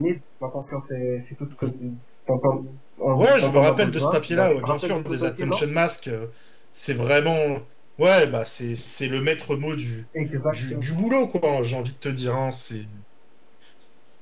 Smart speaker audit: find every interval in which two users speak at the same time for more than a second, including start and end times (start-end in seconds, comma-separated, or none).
3.1-5.6